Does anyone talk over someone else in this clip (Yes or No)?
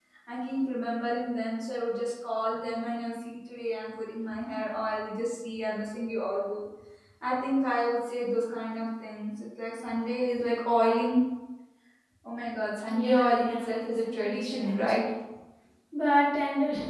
Yes